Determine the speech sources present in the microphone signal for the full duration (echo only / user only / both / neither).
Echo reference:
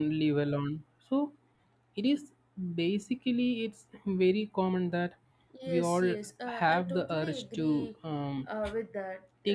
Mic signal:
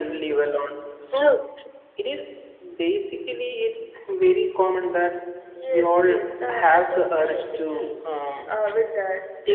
both